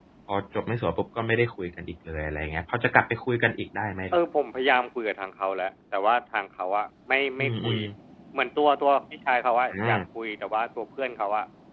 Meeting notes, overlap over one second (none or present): none